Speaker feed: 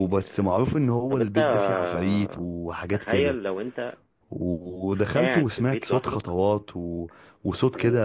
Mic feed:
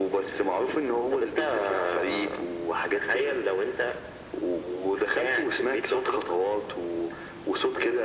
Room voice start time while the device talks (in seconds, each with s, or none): none